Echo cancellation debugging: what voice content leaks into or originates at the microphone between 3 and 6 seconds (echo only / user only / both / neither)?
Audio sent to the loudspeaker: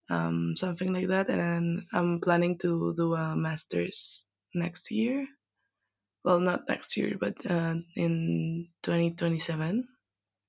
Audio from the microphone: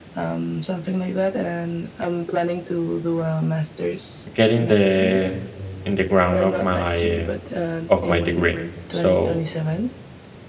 both